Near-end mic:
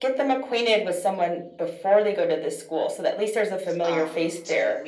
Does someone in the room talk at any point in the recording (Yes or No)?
Yes